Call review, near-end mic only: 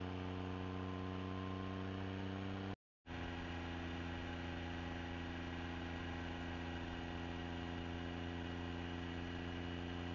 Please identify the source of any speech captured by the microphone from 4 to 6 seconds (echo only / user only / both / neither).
neither